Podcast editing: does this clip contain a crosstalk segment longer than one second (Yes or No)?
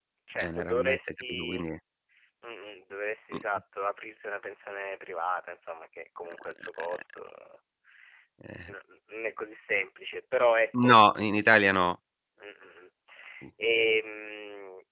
Yes